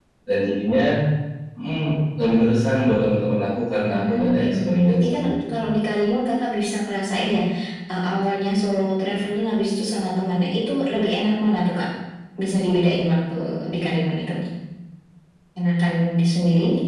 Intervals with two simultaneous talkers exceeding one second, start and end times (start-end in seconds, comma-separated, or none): 3.9-5.6